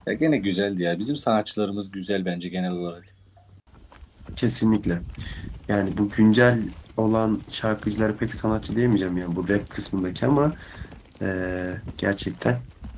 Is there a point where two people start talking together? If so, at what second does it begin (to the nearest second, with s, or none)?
none